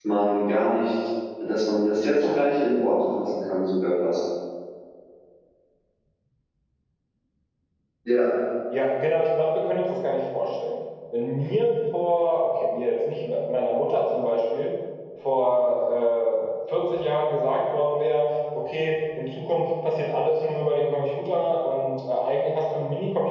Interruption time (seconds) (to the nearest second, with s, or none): none